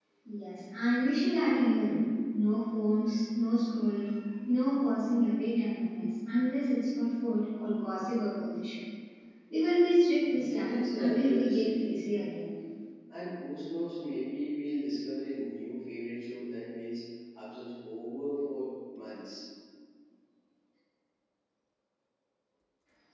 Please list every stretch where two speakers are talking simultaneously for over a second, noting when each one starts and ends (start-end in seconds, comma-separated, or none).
10.3-11.9